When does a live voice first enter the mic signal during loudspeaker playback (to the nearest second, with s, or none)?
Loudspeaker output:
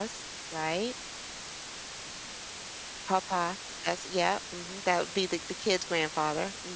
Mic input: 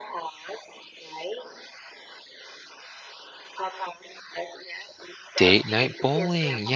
5 s